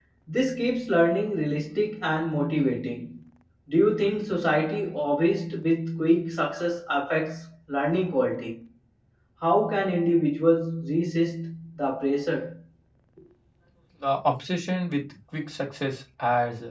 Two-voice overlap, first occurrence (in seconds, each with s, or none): none